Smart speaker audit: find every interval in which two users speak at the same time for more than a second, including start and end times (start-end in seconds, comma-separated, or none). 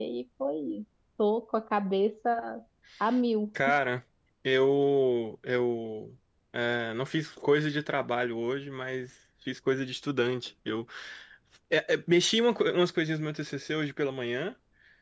none